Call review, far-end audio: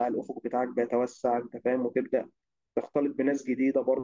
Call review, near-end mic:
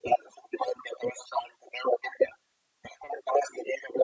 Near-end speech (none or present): none